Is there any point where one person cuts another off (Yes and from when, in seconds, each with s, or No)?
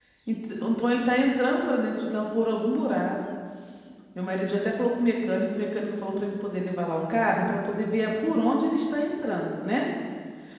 No